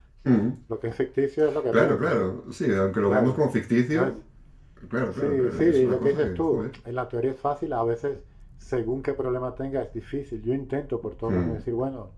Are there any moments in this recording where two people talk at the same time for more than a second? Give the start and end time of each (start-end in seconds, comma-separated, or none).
5.2-6.6